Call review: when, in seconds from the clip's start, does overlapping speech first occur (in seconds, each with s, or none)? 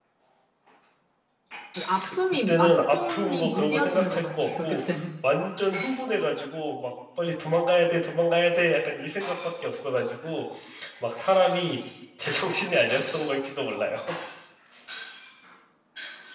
2.5 s